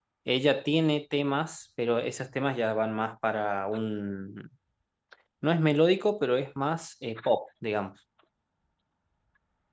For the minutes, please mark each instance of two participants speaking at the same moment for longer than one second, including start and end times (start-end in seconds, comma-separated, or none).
none